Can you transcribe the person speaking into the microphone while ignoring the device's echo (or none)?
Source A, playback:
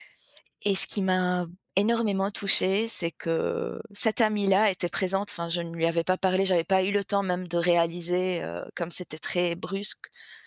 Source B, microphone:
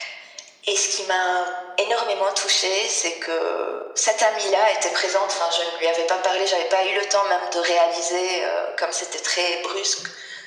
none